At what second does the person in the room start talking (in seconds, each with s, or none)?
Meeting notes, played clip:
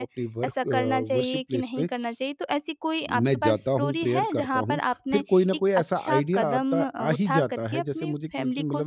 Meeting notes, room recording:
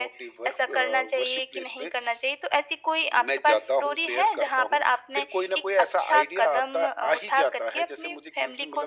none